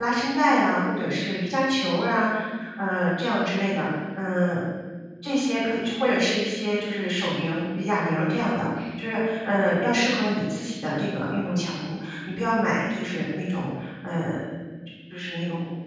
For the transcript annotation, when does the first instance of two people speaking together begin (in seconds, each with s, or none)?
none